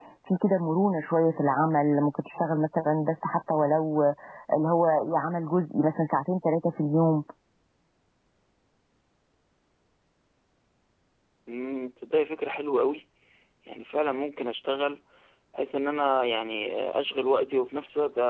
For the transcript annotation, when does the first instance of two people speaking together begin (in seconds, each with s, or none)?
none